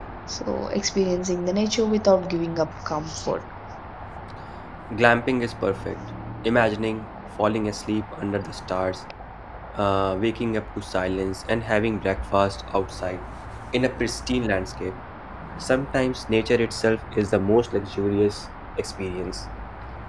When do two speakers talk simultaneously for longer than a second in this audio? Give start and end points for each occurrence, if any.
none

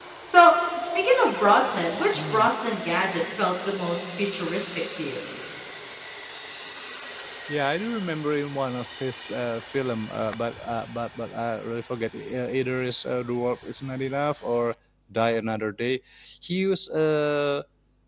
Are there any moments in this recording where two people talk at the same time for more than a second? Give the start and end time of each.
none

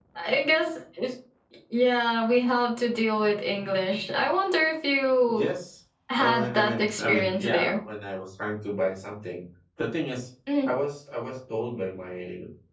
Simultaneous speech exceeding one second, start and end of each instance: 6.2-7.8

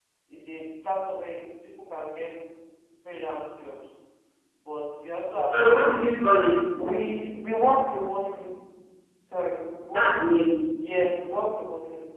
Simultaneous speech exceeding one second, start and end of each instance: none

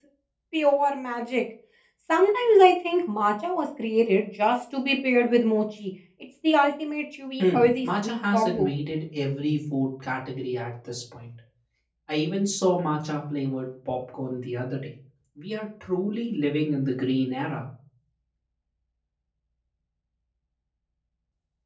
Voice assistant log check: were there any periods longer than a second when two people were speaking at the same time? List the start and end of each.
7.4-8.7

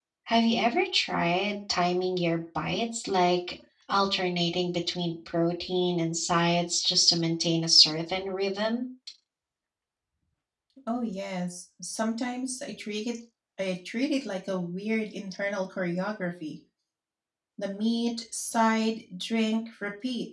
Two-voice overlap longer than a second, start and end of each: none

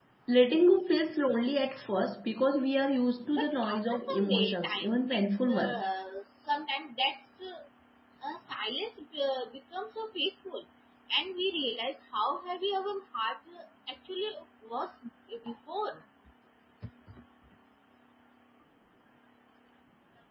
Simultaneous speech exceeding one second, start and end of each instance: 3.3-6.0

